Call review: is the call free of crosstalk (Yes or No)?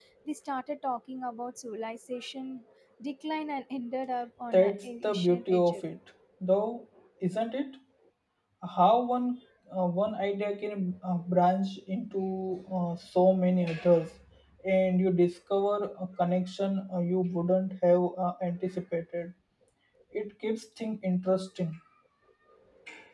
No